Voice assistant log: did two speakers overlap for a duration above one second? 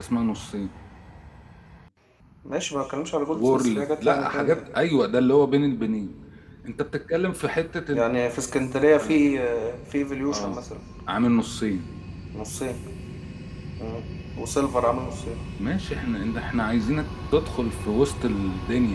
Yes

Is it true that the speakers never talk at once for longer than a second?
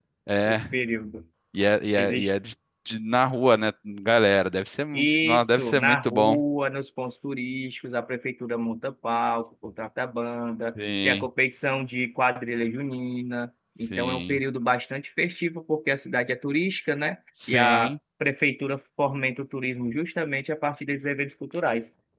No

